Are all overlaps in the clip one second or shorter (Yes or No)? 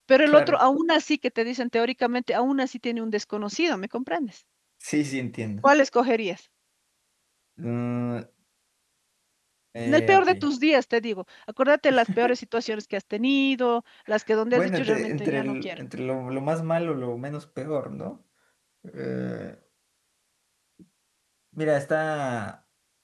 No